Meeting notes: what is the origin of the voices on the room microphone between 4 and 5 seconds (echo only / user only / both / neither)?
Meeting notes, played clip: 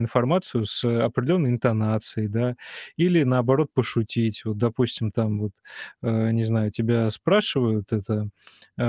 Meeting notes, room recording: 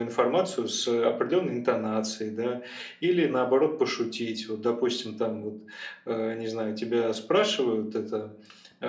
echo only